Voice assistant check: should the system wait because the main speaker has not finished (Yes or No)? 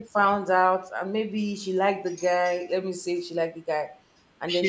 Yes